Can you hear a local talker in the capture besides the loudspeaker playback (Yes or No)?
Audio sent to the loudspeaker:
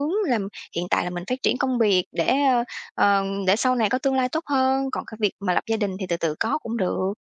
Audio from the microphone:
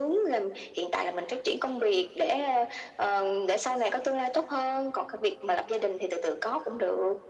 No